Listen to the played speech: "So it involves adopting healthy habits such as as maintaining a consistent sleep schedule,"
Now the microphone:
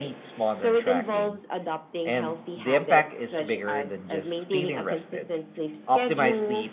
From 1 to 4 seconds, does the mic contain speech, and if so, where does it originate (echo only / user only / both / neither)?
both